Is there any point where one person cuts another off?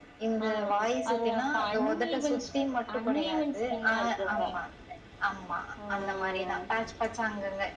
Yes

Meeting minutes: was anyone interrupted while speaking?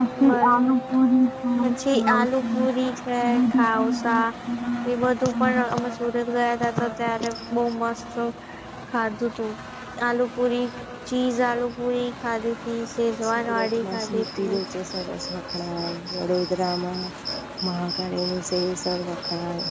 Yes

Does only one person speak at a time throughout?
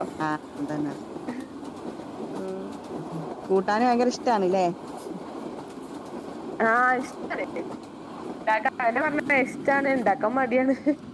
Yes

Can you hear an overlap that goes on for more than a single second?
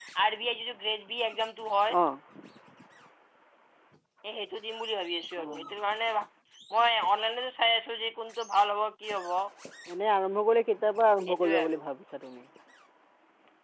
No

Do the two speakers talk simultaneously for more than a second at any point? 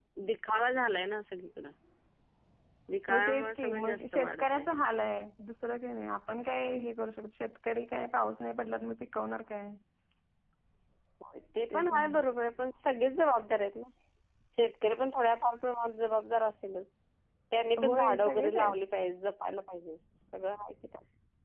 Yes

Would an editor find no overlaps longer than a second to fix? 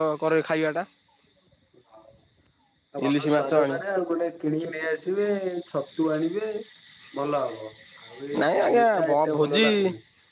No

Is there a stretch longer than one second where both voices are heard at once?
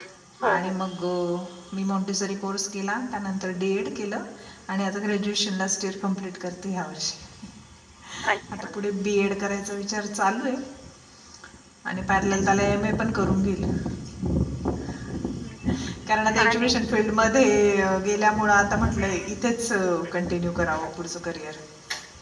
No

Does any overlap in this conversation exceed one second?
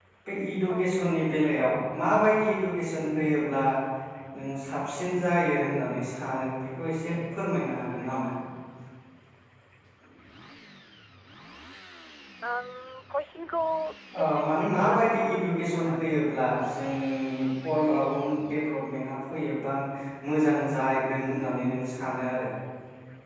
Yes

